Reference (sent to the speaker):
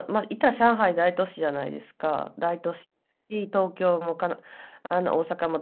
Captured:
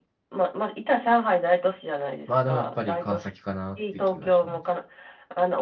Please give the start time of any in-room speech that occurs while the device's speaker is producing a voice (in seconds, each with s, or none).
2.3 s